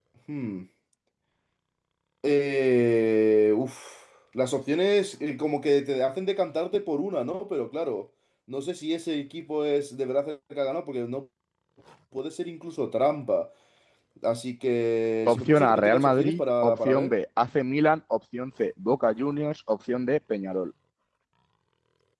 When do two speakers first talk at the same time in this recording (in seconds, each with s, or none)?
15.3 s